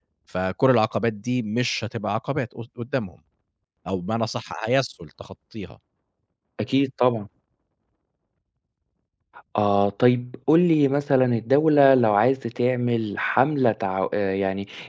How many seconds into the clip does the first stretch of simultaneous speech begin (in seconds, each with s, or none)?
none